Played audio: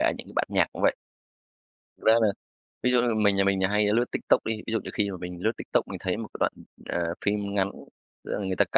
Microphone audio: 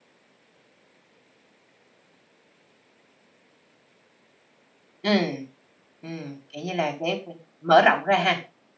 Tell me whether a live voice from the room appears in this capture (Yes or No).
Yes